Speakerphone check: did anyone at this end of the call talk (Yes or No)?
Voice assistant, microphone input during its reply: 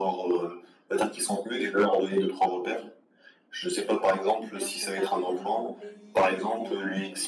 Yes